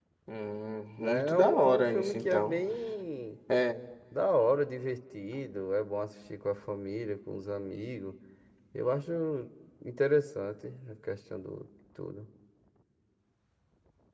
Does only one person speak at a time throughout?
No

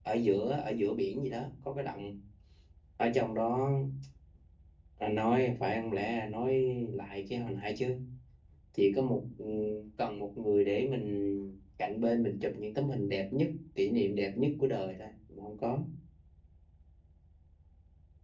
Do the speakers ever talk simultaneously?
No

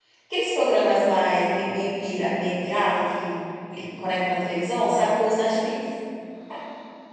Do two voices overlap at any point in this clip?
No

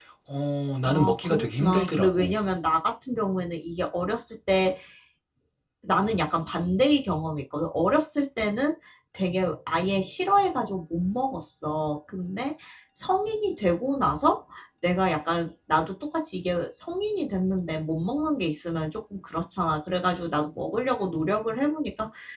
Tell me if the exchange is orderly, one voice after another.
No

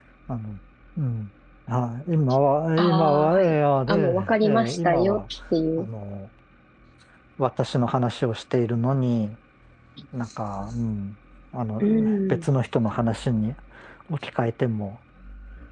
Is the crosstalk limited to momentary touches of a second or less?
No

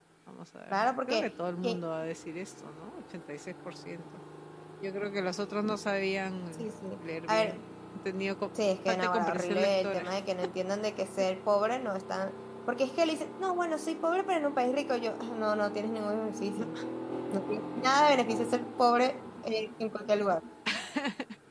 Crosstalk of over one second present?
Yes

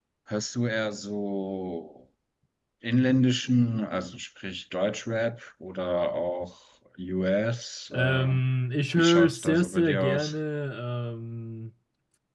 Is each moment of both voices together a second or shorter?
No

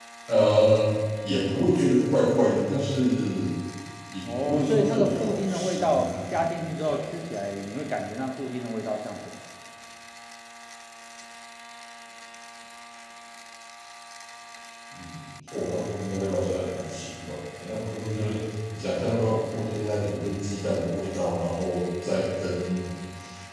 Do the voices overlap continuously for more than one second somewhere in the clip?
Yes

